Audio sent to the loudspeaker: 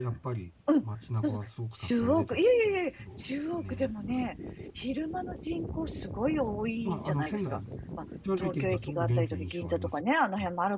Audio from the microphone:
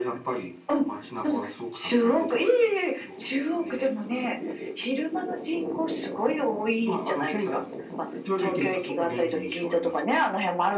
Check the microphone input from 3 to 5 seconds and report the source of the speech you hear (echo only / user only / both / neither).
echo only